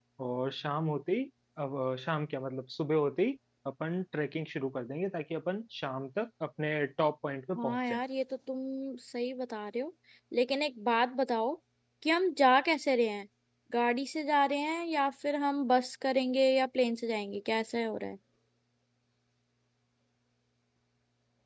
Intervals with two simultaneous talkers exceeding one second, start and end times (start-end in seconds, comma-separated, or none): none